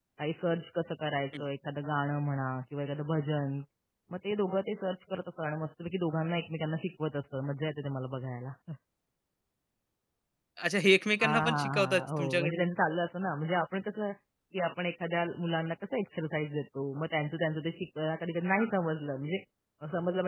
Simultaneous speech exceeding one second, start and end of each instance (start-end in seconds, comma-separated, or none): 11.2-12.6